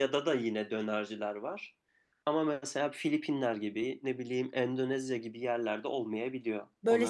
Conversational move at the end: taking over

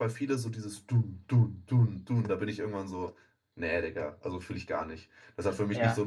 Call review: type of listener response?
listening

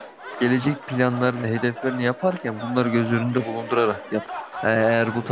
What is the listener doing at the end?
listening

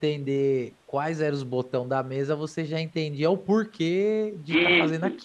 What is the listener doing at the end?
taking over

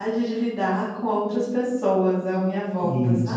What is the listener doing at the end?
taking over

